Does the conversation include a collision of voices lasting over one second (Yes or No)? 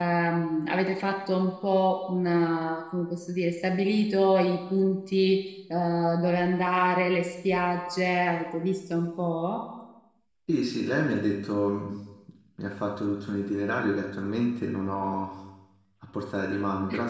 No